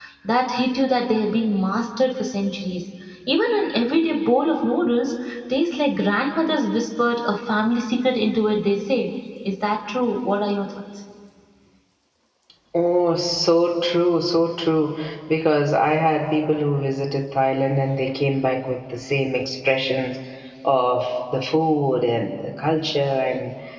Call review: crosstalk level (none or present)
none